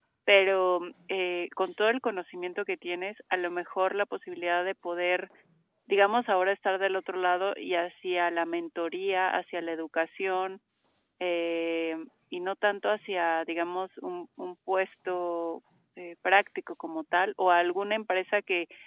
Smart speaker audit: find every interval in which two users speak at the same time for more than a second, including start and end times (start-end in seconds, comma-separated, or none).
none